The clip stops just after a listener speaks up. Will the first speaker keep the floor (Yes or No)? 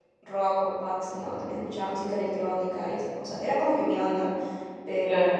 Yes